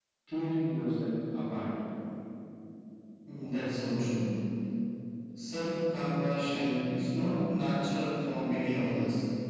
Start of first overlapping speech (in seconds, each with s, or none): none